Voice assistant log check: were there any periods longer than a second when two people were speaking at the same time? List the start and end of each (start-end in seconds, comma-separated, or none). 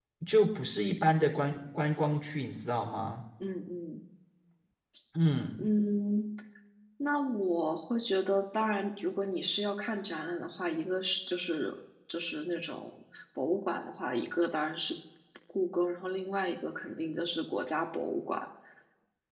none